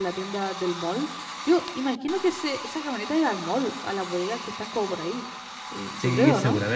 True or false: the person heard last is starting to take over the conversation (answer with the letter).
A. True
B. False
A